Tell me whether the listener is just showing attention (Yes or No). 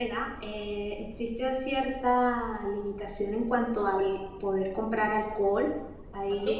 Yes